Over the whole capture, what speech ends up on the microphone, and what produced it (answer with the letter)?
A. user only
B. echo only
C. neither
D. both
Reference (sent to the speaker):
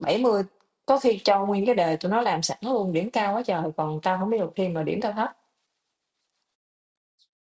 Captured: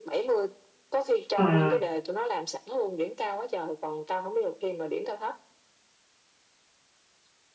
D